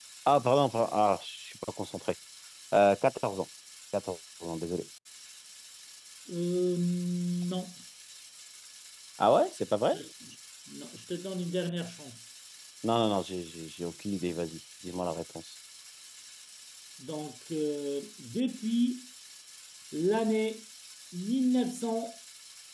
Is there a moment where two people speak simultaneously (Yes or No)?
No